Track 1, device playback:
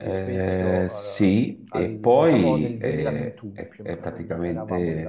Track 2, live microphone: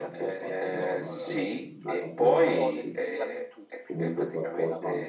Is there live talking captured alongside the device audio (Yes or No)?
Yes